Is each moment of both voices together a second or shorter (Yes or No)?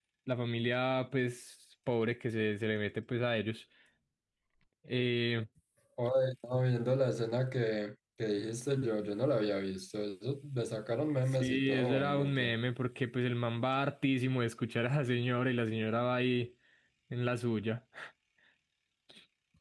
No